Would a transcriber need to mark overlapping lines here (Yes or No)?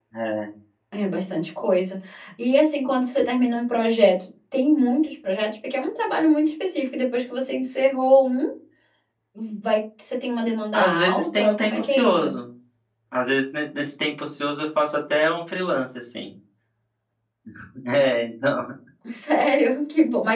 Yes